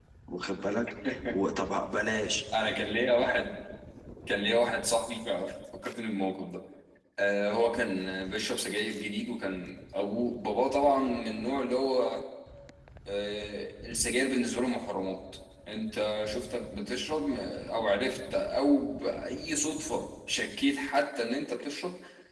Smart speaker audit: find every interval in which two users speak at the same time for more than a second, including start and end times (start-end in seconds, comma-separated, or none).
none